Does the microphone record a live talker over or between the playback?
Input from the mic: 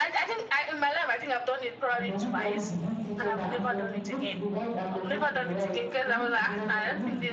Yes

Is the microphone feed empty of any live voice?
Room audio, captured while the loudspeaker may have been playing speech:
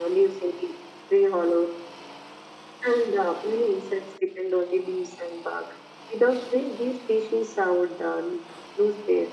Yes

